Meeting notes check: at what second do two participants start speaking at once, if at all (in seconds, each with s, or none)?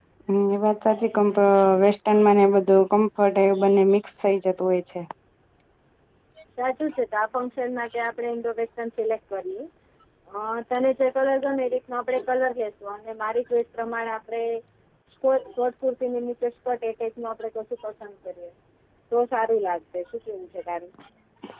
none